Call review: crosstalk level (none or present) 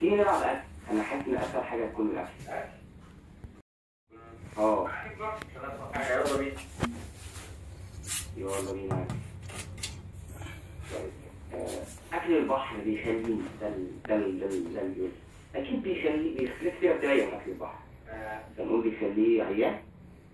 none